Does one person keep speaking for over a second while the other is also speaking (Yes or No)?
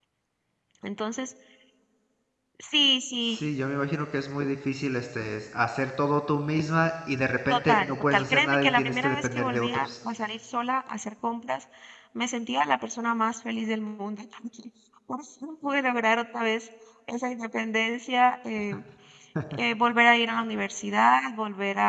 Yes